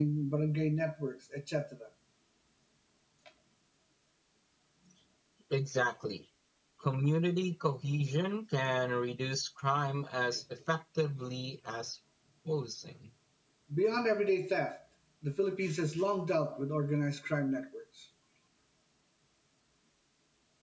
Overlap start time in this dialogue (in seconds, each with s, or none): none